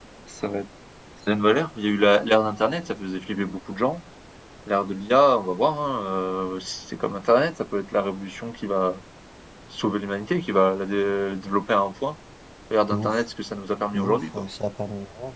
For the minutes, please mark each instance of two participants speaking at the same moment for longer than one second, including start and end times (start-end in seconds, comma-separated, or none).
none